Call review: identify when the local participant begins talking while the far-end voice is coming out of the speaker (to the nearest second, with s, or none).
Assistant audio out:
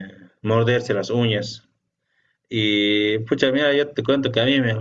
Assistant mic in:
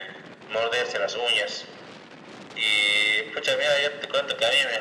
none